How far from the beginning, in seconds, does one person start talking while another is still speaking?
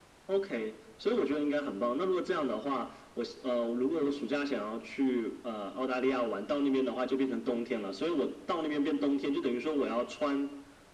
none

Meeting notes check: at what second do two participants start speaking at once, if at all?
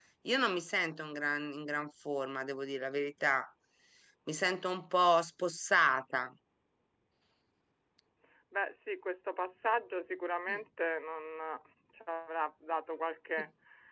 none

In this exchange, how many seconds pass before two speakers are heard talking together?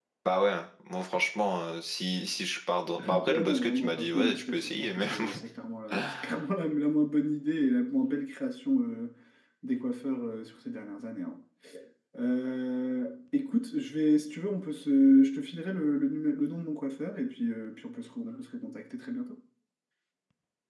3.0 s

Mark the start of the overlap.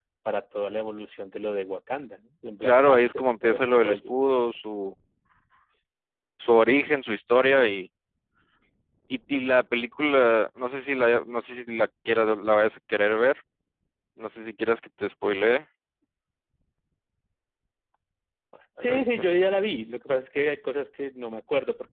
2.6 s

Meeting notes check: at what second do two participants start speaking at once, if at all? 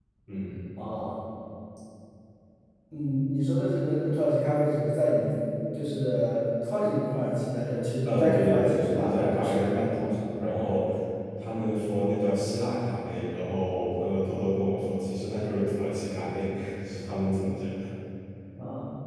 8.1 s

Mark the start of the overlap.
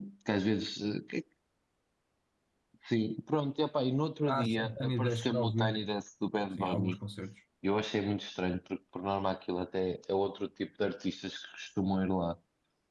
4.3 s

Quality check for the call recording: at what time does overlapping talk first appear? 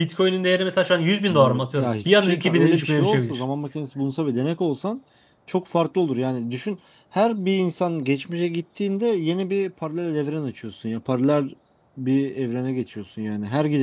1.3 s

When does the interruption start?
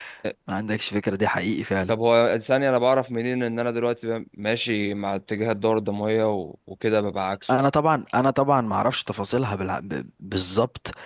none

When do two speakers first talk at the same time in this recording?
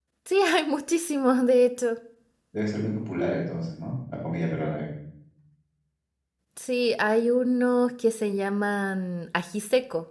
none

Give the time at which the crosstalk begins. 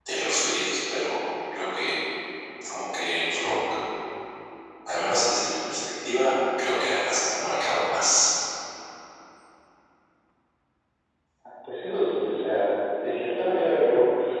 none

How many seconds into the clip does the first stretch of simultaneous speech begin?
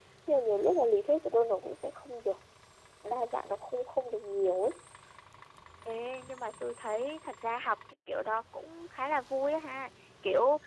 none

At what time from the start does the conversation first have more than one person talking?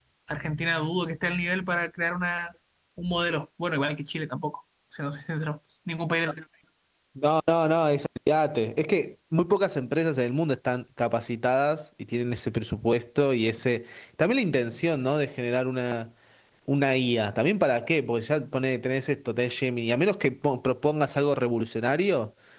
none

